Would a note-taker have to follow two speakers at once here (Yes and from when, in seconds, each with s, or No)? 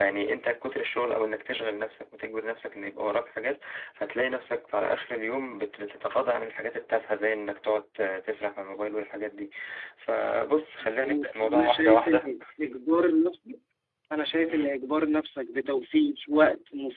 Yes, from 10.8 s